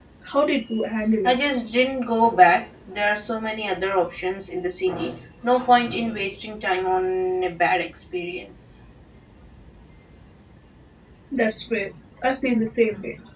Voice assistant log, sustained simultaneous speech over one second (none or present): none